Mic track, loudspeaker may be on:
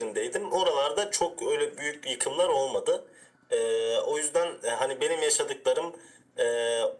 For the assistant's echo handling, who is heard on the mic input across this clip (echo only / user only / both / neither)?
echo only